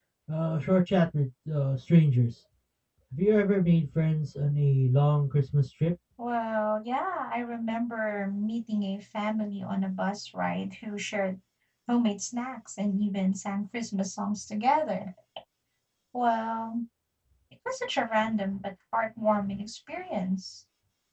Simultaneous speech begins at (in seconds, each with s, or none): none